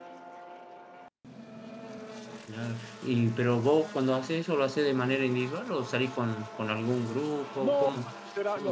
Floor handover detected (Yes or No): Yes